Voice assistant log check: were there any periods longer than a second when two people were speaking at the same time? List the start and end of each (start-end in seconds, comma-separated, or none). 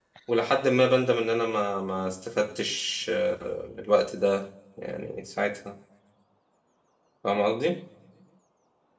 none